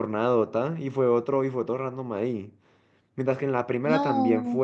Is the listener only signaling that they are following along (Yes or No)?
Yes